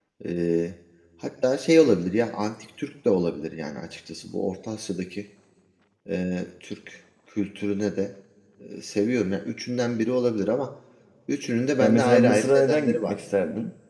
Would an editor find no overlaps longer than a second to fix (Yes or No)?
No